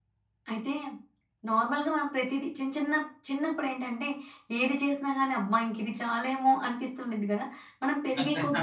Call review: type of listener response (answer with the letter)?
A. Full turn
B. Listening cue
B